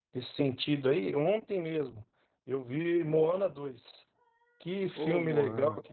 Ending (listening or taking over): listening